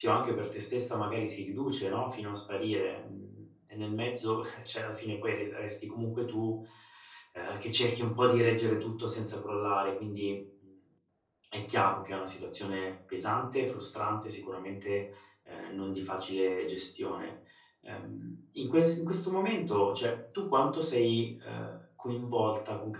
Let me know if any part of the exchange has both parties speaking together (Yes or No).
No